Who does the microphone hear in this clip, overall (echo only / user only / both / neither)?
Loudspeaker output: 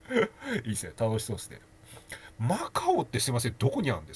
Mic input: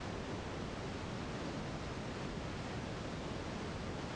neither